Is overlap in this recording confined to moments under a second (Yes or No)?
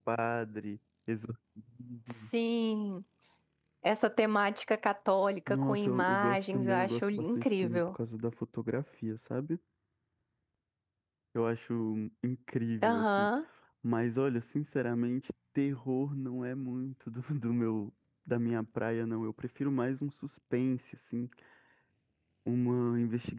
No